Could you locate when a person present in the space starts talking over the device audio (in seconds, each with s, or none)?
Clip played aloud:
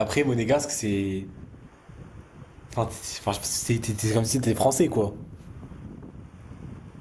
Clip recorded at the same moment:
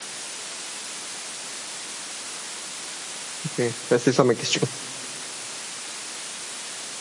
3.4 s